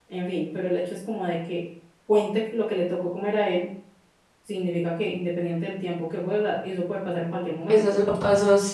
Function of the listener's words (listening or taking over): taking over